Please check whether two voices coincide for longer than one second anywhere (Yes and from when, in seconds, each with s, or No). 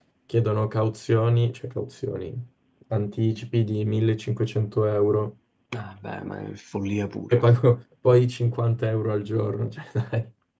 No